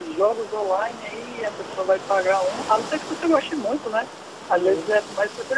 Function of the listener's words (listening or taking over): listening